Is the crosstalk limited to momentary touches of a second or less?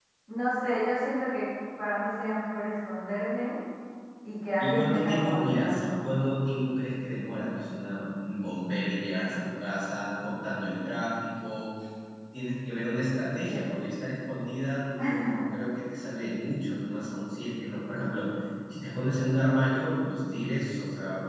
No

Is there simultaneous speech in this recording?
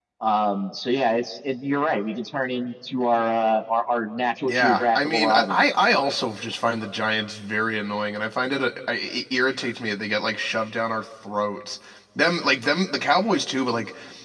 Yes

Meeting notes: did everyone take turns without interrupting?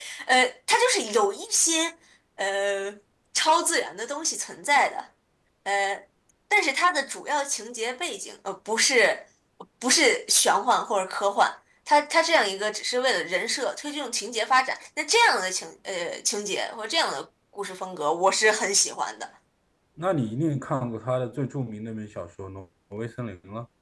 Yes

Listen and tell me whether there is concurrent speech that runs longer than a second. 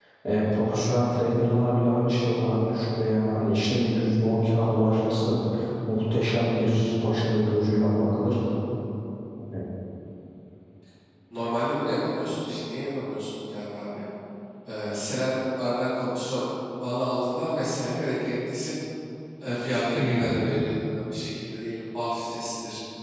No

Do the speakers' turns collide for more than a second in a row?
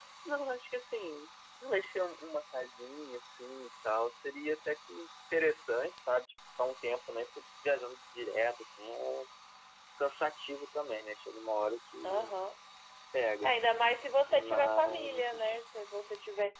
Yes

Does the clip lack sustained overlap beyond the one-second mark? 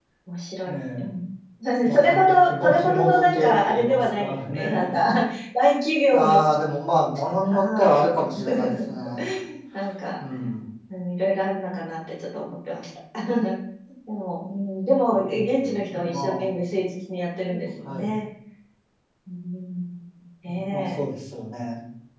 No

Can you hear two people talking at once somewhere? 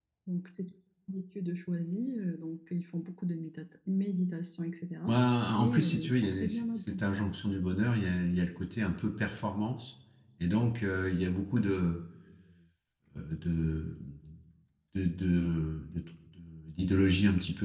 Yes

